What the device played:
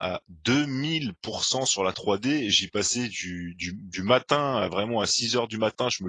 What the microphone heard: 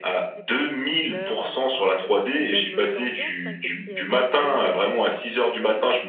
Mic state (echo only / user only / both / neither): both